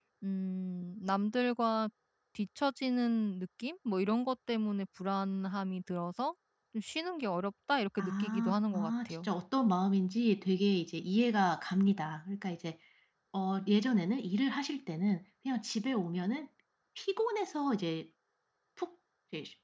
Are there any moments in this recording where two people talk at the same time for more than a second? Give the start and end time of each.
8.0-9.3

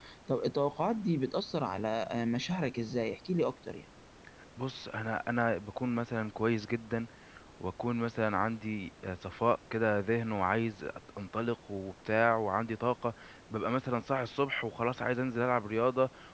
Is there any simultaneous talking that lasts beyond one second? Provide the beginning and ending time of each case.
none

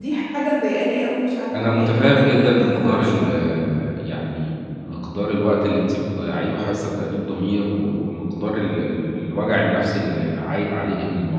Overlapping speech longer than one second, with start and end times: 1.6-3.3

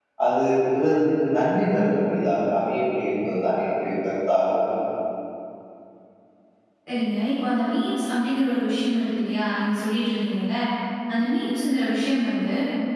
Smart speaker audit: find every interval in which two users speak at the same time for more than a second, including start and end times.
none

